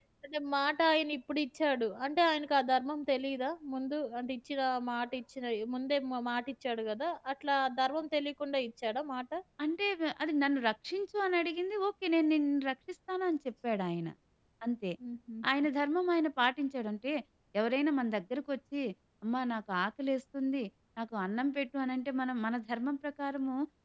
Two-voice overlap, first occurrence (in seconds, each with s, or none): none